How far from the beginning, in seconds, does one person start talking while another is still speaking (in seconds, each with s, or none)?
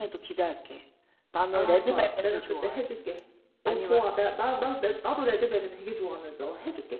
1.5 s